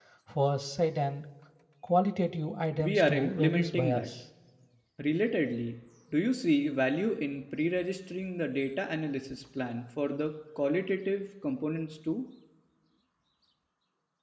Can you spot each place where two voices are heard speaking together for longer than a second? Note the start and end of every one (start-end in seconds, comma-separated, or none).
2.8-4.1